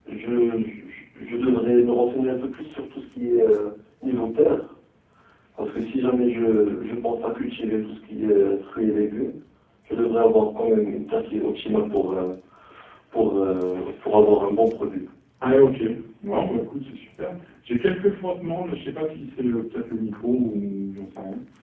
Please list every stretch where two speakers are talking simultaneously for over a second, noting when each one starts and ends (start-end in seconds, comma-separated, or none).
none